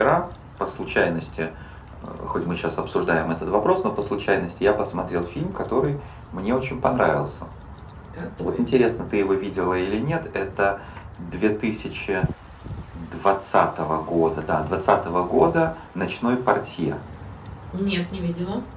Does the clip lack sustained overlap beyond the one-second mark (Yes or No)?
Yes